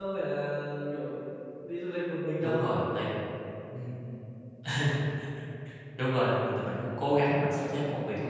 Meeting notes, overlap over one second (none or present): none